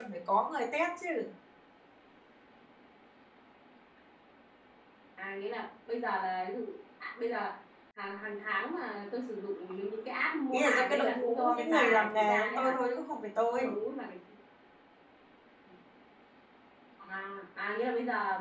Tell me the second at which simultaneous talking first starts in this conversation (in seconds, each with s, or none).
10.5 s